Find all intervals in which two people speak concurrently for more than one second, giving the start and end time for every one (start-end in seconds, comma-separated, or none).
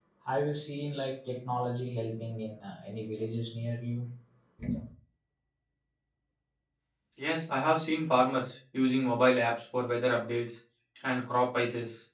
none